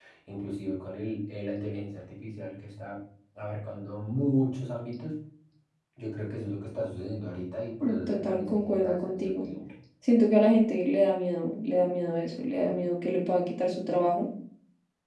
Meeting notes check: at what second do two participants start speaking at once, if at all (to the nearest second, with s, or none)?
8 s